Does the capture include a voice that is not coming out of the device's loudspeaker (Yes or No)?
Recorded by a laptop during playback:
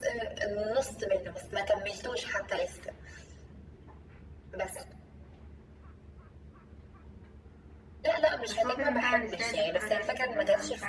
Yes